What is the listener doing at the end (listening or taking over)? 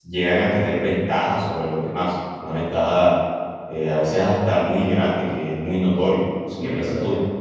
taking over